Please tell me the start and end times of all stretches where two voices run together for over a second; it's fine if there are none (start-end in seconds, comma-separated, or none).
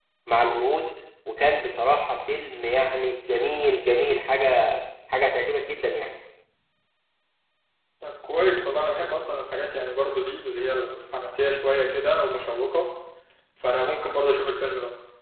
none